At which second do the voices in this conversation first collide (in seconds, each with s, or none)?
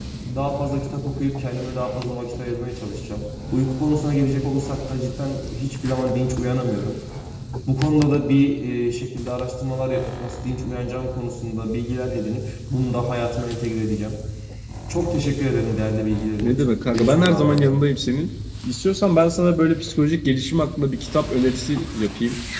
16.4 s